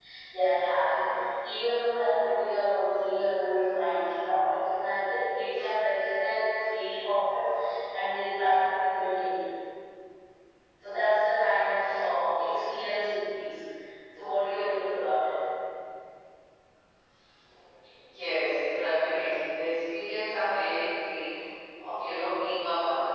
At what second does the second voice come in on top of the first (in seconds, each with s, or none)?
none